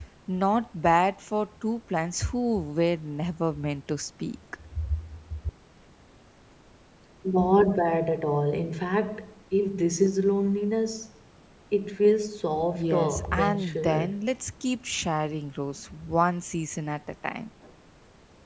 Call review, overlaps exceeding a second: present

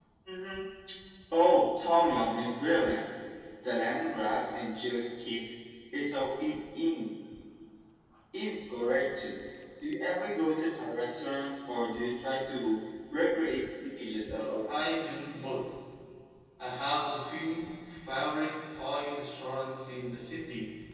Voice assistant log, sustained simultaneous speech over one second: none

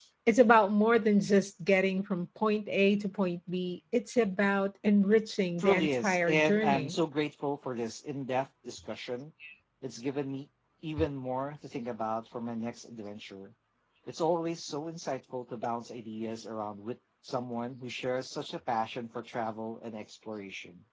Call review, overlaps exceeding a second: present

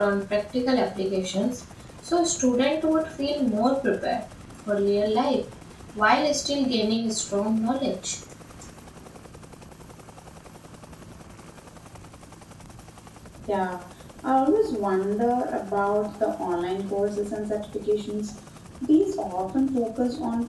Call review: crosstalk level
none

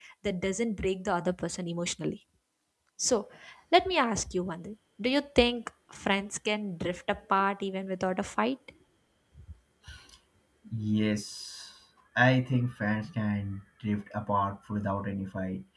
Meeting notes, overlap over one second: none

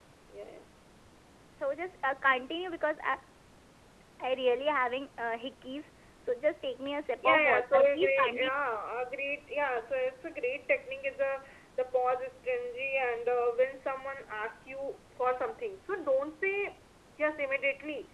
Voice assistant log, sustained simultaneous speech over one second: present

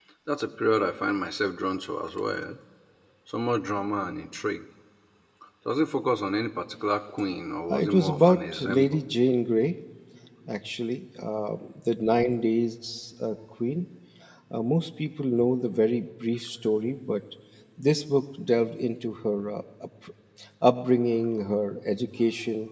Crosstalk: present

